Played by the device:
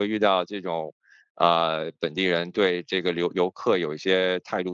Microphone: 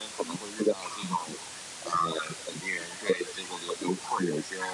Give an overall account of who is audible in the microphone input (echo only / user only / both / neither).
echo only